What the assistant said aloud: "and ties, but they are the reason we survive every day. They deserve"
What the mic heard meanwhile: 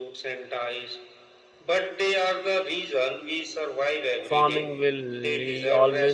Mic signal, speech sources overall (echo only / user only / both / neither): both